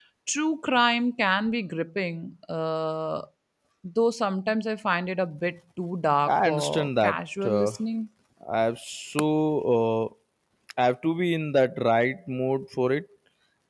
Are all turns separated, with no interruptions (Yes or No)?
No